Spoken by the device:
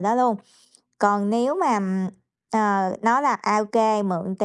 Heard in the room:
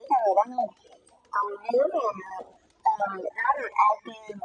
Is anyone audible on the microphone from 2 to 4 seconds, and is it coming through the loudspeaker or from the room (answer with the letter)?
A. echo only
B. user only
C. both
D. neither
A